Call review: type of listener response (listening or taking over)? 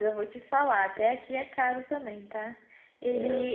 listening